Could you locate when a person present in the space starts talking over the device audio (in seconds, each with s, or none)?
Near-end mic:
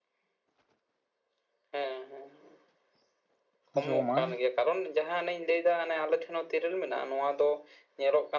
3.8 s